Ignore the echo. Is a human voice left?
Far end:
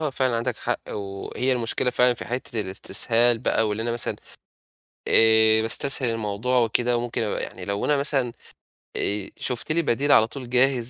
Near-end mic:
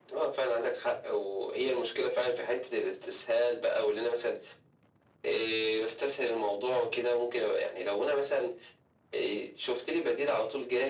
No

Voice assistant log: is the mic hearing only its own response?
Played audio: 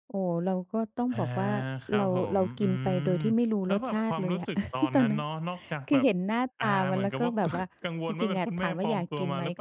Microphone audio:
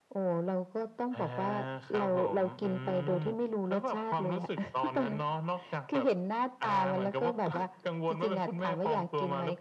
Yes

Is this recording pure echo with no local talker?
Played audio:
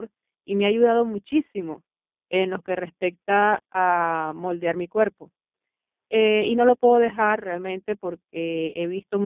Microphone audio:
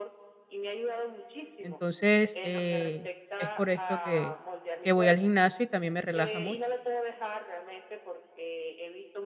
No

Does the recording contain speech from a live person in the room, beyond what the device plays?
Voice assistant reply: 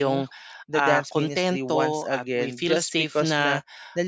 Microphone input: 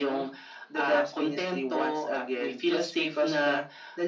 No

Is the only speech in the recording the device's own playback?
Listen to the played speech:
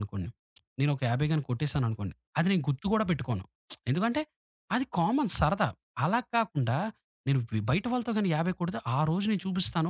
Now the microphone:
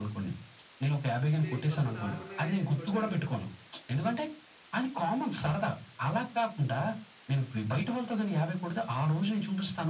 No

